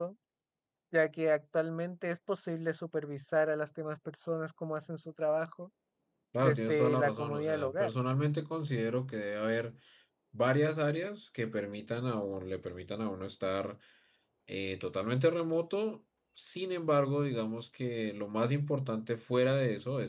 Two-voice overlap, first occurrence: 6.4 s

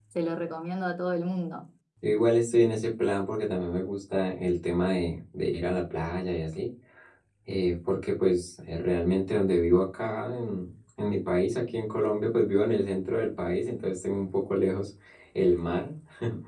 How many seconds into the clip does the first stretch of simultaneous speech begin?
none

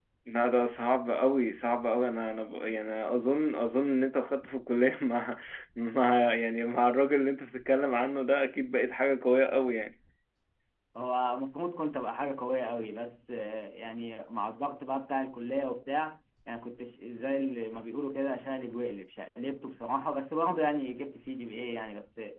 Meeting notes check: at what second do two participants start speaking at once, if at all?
none

